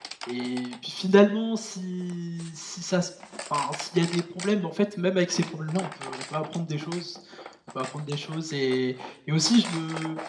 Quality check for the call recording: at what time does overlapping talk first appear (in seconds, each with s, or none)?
none